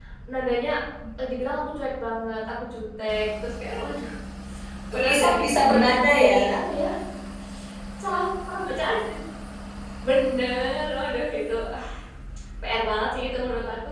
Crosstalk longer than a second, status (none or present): present